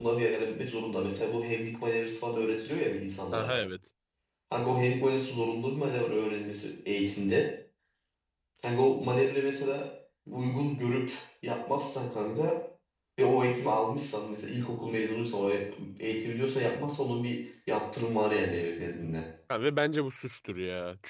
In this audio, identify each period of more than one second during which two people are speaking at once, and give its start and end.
none

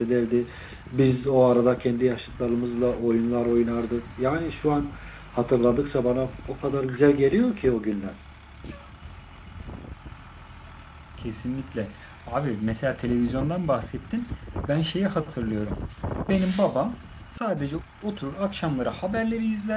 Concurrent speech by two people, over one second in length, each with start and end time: none

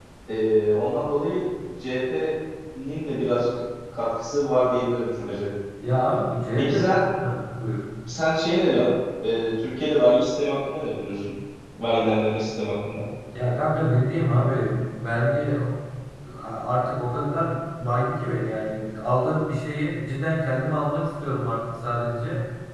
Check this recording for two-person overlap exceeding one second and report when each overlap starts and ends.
none

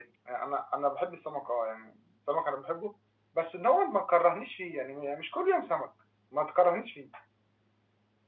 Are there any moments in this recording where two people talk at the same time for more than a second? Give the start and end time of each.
none

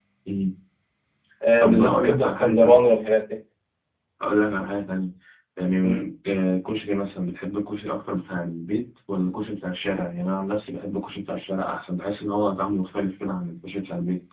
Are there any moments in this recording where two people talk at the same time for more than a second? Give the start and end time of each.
1.6-2.8

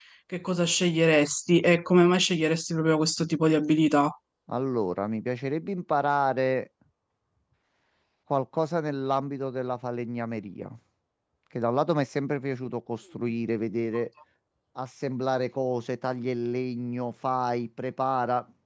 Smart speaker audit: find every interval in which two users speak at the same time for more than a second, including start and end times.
none

